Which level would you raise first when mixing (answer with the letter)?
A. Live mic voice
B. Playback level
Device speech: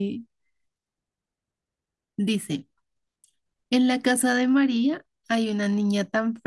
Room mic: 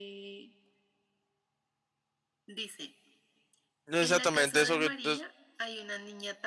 B